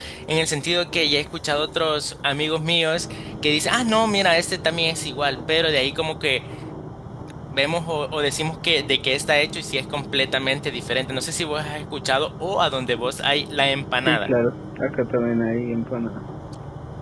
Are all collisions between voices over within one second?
Yes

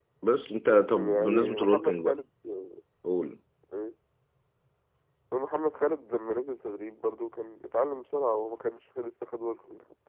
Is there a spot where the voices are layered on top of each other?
Yes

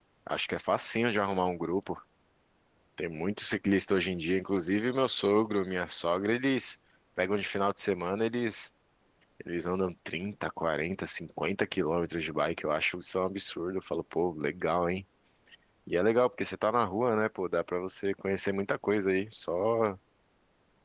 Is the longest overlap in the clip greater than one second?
No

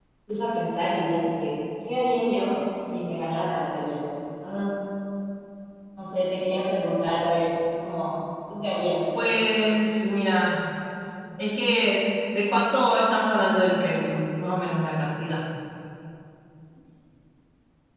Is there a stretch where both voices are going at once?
No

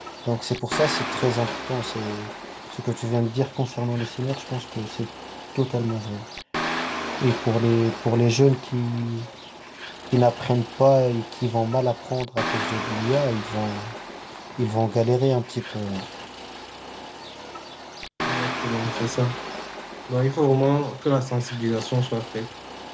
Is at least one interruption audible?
No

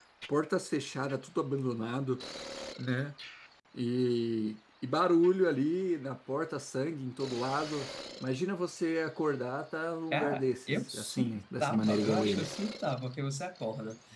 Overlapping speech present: Yes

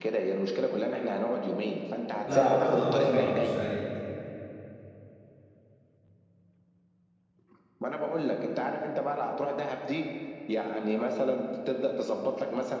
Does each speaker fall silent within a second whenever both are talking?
No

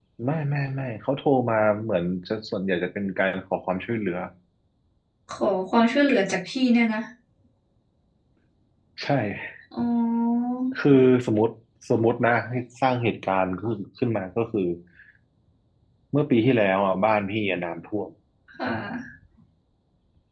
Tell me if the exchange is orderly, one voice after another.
Yes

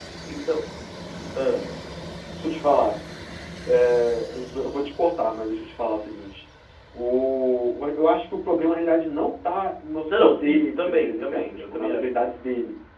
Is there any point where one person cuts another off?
Yes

